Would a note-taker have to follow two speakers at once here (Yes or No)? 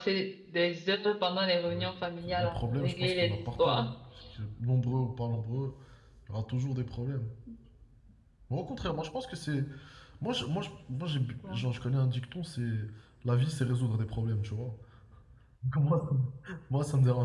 Yes